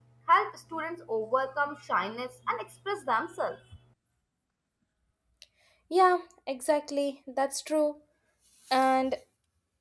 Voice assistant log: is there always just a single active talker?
Yes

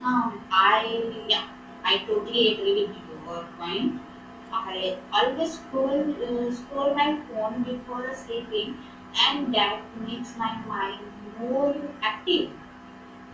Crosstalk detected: No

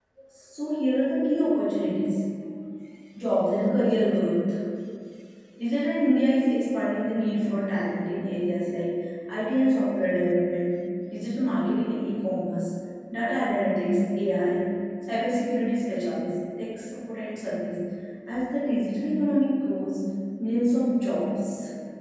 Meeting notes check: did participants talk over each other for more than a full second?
No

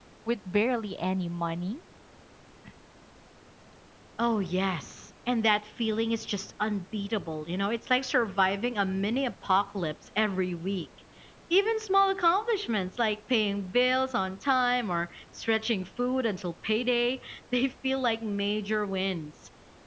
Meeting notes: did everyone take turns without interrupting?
Yes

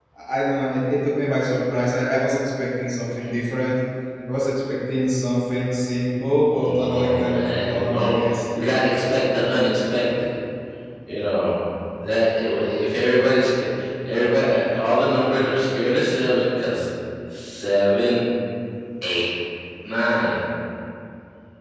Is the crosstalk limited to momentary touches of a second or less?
No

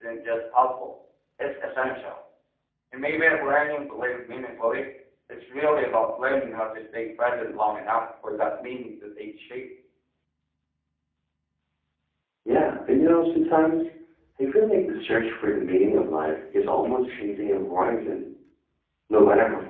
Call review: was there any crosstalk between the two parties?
No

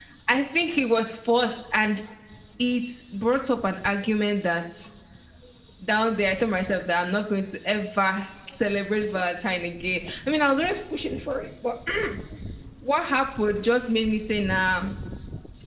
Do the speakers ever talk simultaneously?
No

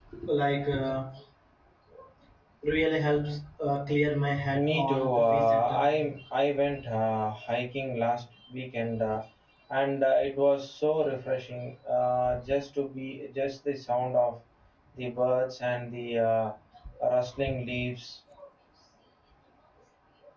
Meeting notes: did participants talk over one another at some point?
Yes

